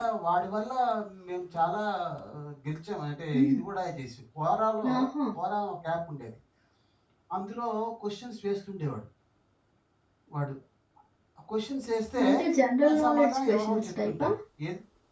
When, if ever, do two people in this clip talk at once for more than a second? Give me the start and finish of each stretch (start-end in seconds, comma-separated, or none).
12.9-14.3